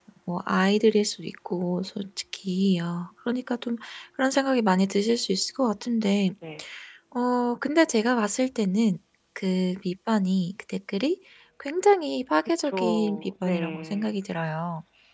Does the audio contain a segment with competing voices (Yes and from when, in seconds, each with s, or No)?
Yes, from 12.6 s